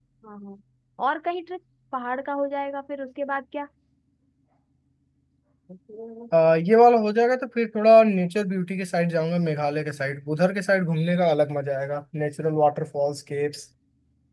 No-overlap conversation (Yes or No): Yes